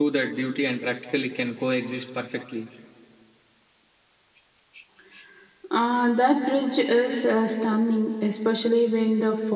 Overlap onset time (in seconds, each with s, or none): none